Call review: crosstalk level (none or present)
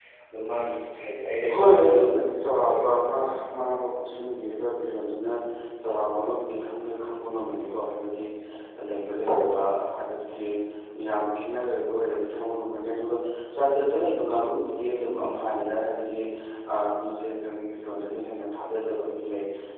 present